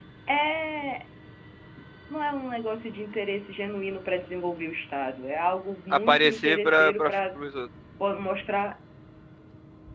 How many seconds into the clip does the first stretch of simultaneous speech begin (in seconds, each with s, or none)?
5.9 s